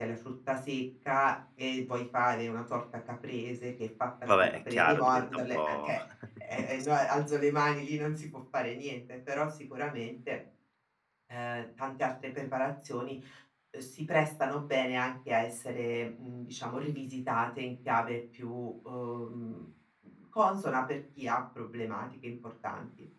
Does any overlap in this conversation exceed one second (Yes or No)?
Yes